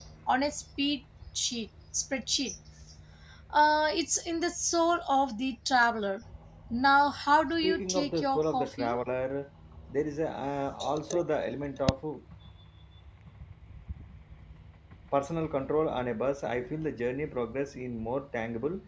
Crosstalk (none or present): present